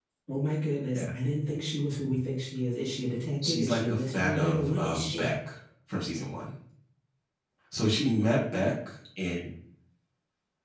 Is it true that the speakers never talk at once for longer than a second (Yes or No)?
No